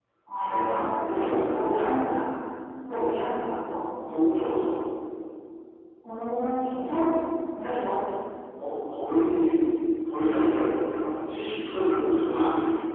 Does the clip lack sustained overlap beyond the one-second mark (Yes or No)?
No